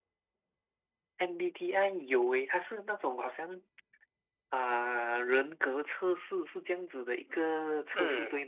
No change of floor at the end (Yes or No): No